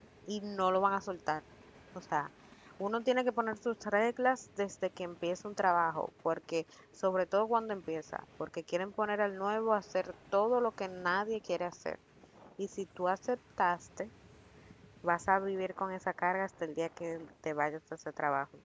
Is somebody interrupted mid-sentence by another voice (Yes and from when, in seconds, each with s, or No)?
No